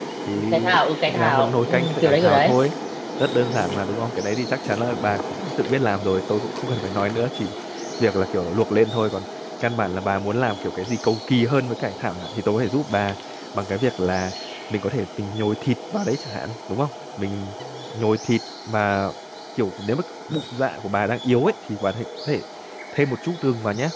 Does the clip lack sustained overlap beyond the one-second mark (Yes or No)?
No